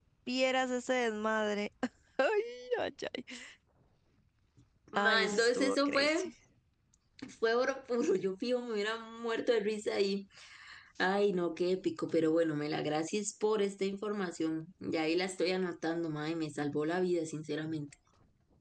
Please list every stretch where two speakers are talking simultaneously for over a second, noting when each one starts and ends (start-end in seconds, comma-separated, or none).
4.9-6.3